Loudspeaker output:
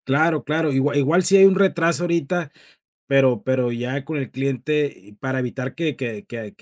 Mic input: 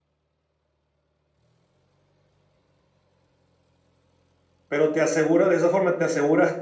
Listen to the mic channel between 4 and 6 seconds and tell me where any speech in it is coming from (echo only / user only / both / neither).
user only